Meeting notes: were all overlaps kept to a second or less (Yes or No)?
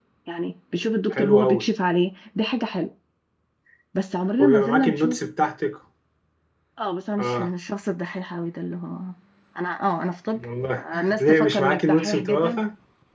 No